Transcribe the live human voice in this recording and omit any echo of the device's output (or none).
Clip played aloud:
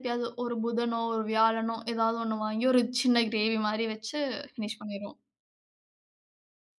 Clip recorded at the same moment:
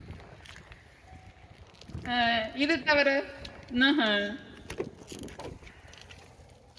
அ இது தவிர, ம்ஹம்.